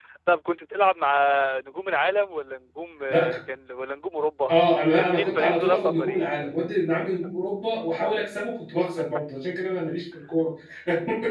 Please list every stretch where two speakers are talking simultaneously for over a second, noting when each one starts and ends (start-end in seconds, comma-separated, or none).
5.0-6.3